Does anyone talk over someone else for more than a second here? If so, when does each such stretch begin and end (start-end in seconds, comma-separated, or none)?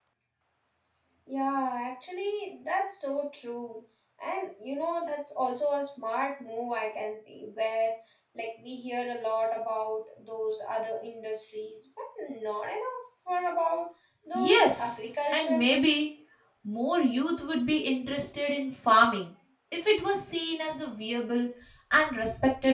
14.3-15.7